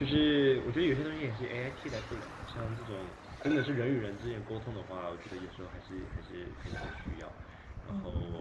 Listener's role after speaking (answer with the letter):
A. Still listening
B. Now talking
A